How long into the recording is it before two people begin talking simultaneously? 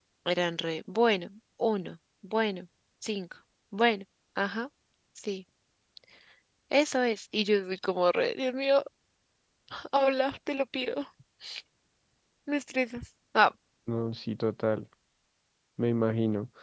none

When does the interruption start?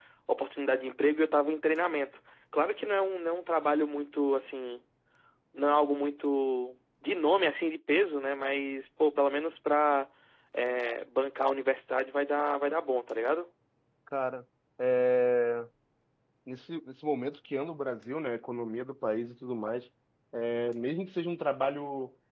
none

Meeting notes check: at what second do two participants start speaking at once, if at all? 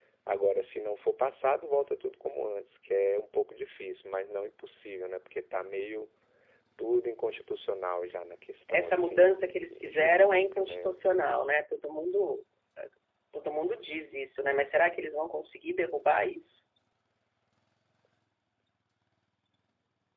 8.7 s

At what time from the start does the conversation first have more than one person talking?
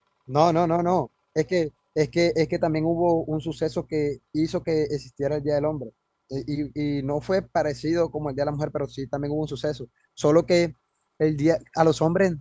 none

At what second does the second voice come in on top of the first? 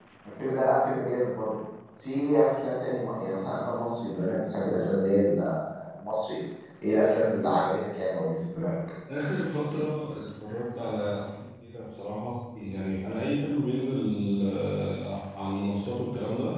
none

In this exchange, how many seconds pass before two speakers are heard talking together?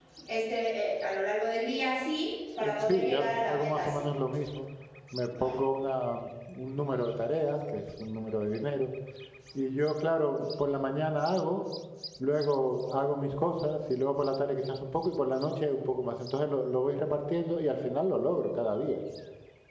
2.6 s

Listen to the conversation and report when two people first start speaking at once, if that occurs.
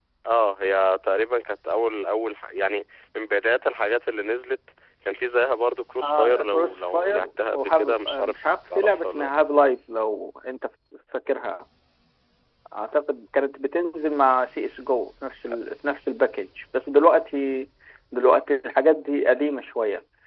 6.0 s

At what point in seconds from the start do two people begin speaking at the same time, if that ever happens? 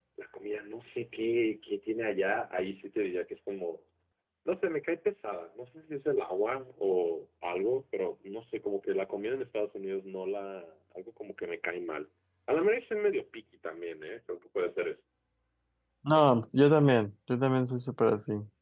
none

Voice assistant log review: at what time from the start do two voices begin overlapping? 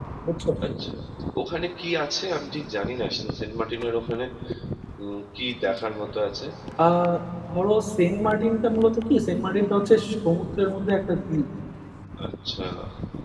none

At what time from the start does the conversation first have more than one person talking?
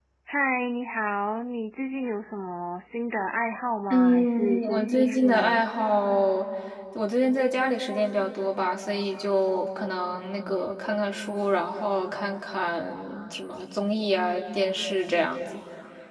3.9 s

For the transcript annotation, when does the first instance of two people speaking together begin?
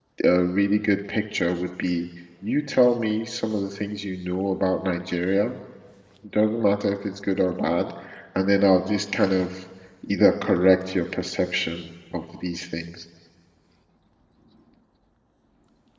none

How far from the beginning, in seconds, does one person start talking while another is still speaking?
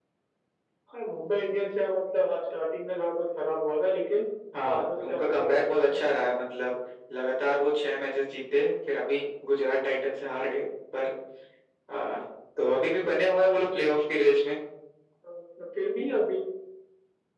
4.6 s

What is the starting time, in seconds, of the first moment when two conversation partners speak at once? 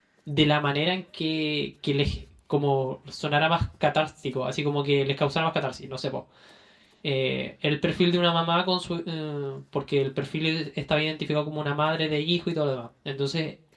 none

